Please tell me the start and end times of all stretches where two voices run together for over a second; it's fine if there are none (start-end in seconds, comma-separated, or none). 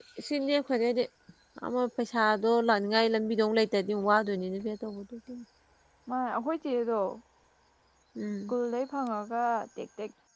none